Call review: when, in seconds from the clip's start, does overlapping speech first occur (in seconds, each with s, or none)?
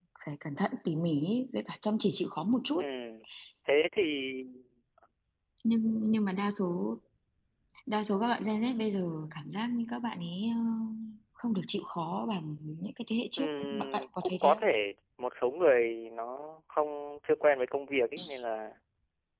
13.4 s